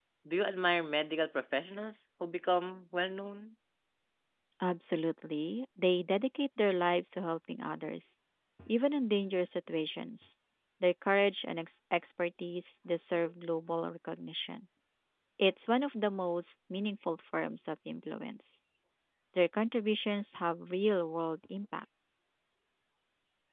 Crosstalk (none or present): none